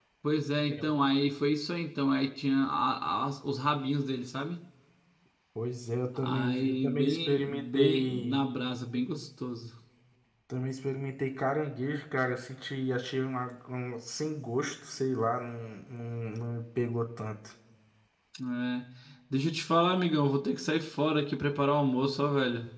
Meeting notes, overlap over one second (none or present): present